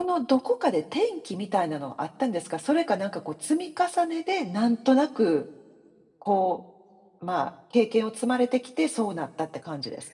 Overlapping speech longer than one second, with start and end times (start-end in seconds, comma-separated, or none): none